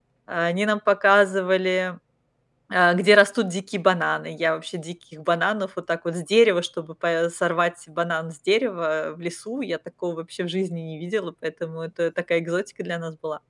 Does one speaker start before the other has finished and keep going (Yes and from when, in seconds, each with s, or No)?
No